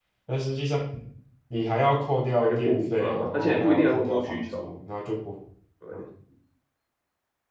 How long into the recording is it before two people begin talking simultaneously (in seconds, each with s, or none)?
2.4 s